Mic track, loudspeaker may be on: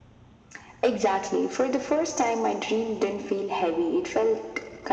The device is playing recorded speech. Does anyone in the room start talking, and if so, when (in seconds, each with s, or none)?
none